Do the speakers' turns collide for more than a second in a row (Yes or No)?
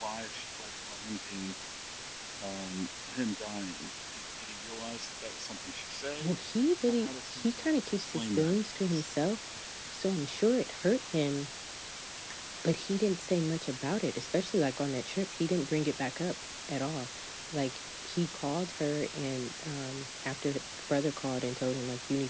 Yes